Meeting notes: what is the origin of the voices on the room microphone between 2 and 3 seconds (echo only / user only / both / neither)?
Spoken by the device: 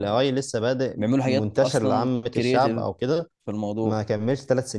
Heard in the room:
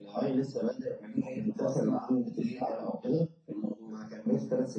echo only